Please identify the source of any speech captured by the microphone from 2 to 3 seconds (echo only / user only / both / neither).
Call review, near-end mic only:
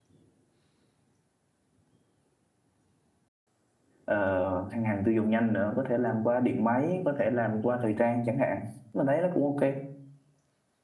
neither